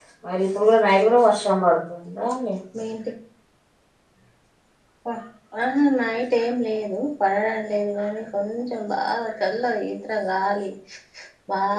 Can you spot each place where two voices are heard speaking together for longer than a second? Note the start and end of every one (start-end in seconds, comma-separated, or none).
none